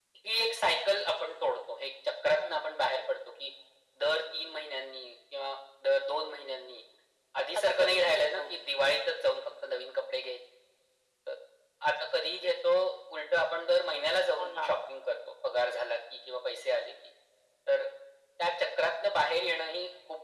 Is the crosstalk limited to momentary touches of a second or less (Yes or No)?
No